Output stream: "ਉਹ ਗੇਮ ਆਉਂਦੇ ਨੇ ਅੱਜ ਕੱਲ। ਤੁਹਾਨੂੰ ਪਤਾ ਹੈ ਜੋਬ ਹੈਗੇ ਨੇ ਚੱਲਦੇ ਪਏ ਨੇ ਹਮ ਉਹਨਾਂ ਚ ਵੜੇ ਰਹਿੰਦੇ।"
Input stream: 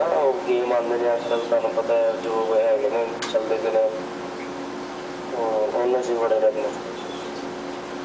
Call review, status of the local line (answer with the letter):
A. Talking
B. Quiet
B